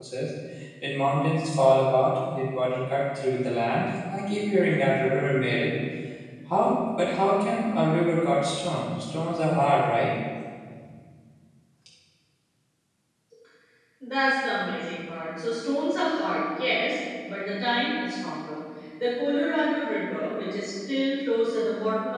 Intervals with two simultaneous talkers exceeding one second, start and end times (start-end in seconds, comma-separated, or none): none